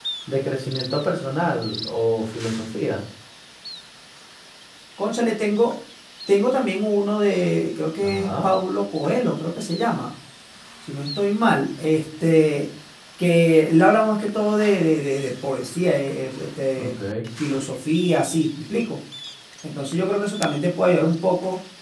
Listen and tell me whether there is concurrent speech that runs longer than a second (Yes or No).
No